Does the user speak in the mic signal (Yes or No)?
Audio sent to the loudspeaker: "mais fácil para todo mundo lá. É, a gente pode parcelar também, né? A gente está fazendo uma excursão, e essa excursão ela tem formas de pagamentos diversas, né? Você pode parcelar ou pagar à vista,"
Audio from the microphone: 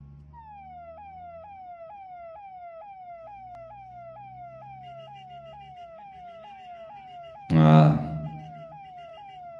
Yes